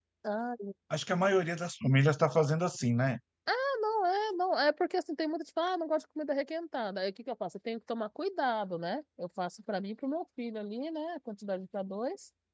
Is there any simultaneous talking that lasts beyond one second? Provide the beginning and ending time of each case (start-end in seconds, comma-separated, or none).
none